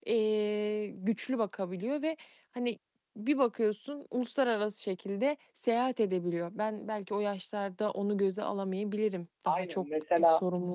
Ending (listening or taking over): listening